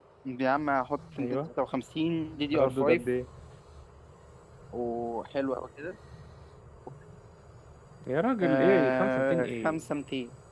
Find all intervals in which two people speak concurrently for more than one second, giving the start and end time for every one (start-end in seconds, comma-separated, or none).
8.4-9.9